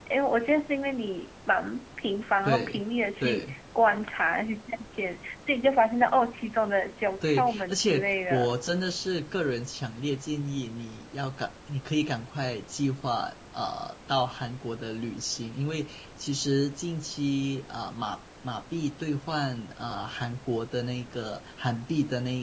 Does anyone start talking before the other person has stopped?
Yes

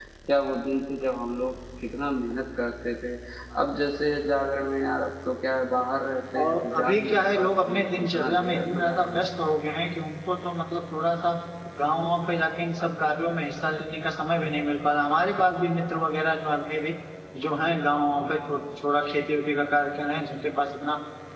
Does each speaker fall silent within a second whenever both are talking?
No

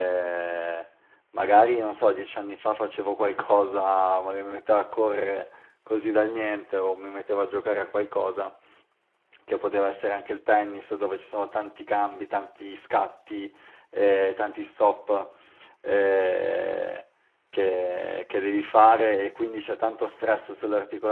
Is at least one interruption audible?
No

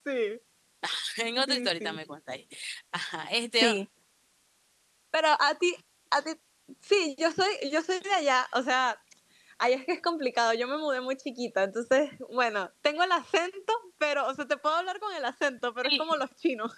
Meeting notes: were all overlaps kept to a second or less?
Yes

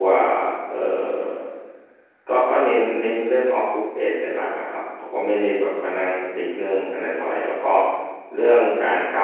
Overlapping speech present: No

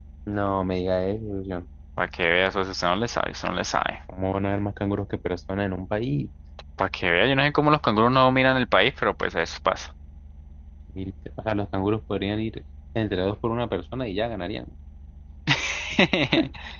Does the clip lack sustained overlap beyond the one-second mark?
Yes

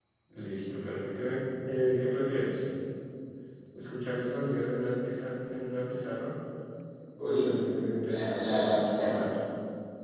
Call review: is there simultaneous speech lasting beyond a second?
Yes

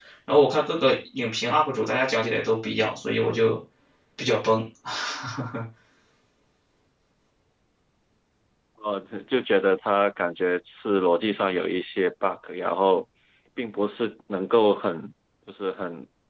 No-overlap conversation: Yes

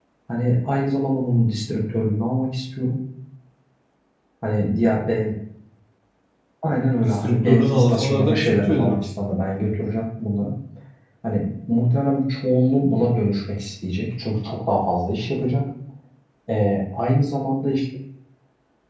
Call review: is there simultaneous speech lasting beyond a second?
Yes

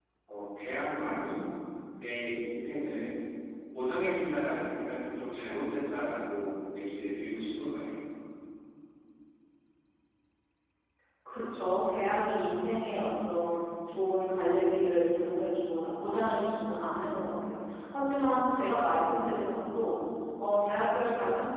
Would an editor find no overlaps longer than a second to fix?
Yes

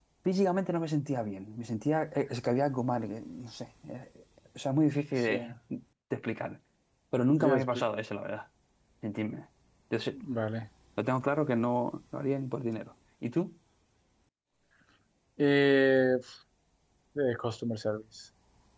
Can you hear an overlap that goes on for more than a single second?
No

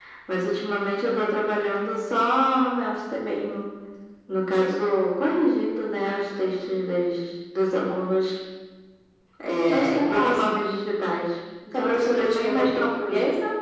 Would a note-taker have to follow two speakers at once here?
Yes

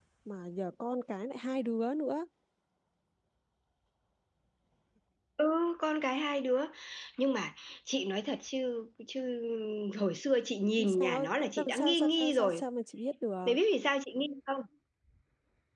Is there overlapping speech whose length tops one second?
Yes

